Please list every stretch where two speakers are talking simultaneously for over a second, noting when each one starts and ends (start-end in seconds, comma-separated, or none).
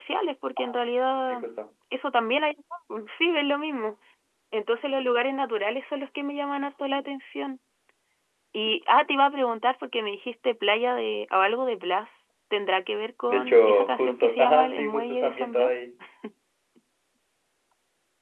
13.3-15.7